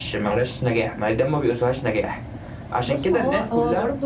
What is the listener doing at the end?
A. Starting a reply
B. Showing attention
A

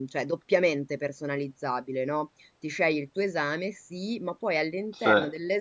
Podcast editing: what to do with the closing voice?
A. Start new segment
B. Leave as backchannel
B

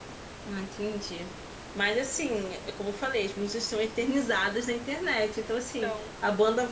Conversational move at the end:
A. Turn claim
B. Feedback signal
B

